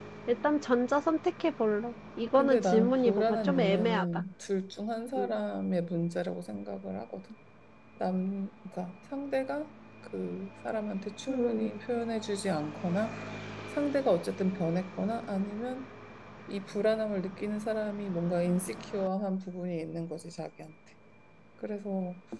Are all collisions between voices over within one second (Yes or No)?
No